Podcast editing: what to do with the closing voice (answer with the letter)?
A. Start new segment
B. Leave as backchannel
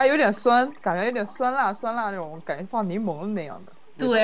A